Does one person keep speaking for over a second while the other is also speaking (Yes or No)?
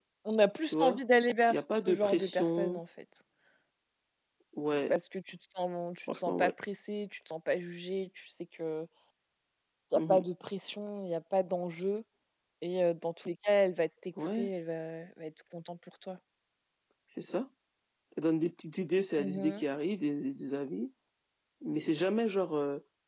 Yes